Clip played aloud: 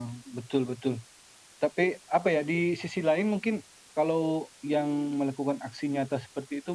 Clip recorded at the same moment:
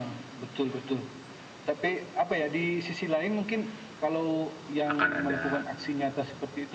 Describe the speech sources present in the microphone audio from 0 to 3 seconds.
echo only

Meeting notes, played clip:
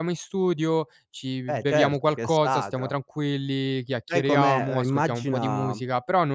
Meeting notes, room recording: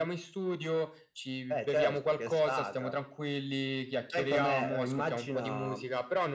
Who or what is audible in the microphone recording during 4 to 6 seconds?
echo only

